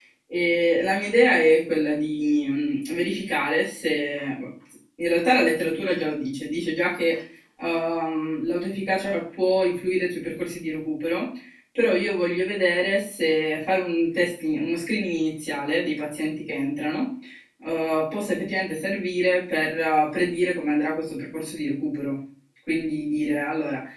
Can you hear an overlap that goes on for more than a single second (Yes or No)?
No